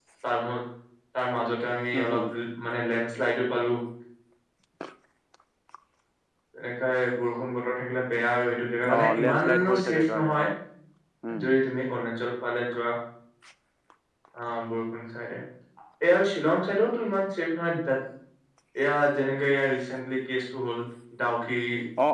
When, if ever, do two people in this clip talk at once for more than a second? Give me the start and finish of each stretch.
8.9-10.5

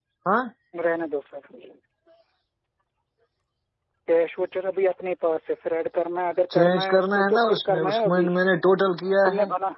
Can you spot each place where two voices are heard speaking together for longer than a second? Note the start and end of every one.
6.5-8.3

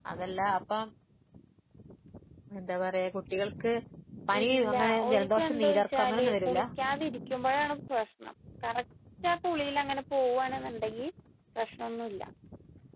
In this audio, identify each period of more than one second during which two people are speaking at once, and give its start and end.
4.4-6.6

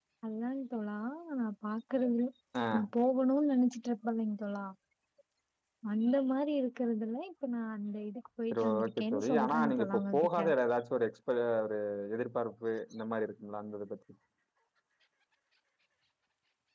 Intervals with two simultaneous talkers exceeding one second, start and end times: 8.5-10.4

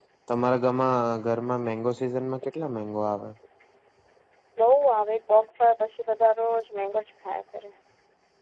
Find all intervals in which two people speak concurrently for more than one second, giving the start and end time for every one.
none

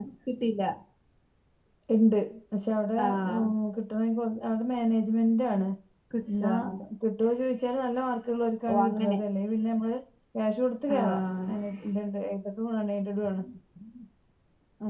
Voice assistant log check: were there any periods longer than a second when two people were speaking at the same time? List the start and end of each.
none

